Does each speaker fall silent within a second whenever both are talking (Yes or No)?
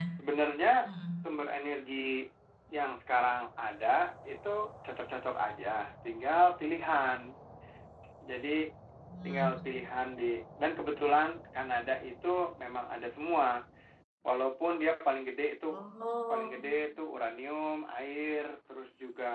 Yes